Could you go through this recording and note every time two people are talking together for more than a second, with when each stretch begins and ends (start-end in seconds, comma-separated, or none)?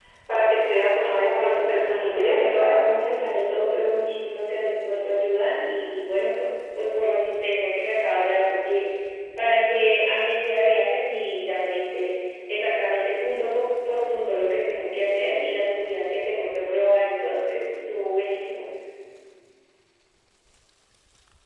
1.0-2.8